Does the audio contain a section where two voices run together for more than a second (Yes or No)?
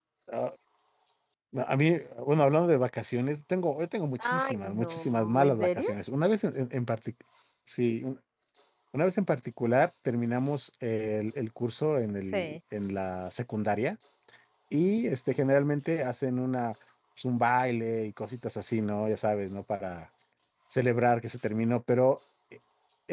Yes